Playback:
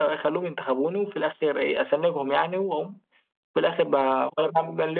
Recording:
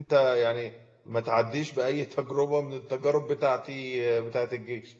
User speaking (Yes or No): Yes